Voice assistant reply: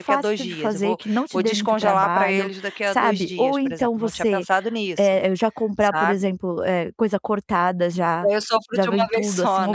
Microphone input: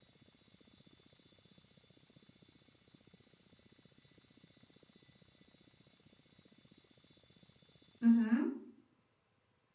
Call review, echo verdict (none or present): none